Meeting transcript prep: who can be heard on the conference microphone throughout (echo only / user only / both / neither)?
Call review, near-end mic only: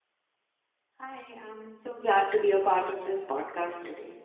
user only